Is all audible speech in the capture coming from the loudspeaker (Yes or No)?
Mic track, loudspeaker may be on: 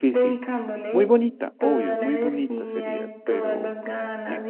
No